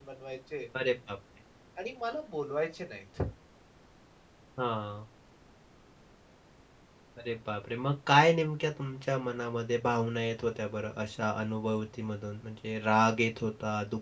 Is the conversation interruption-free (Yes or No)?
Yes